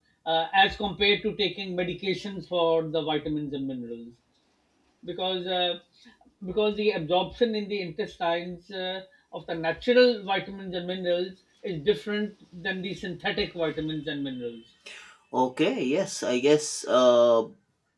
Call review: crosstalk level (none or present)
none